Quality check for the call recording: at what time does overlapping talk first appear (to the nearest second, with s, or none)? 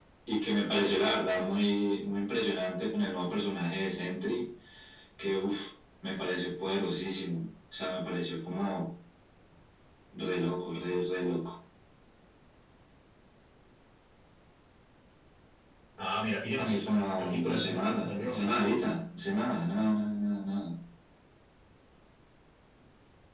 17 s